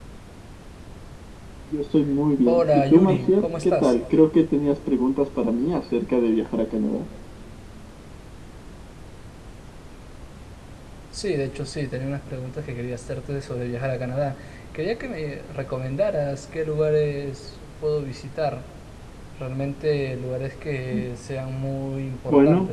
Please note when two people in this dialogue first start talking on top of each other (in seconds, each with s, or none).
2.5 s